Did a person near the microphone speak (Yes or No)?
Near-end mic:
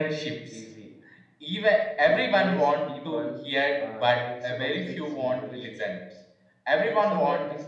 No